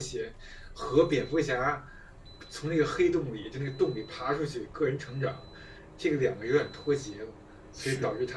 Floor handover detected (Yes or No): No